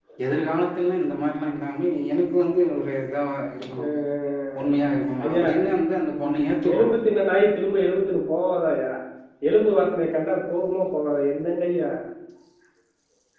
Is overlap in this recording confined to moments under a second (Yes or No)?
Yes